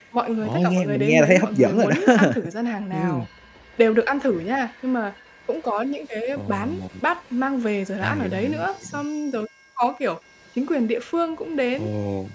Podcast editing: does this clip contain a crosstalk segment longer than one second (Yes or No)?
Yes